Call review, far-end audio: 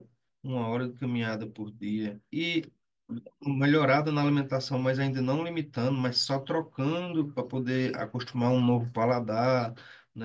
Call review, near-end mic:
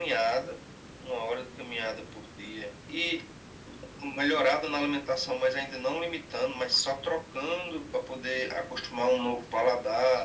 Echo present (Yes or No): Yes